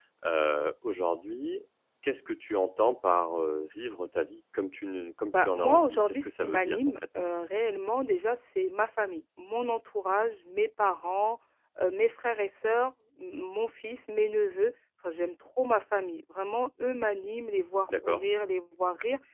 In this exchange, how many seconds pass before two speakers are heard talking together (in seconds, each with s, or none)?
5.3 s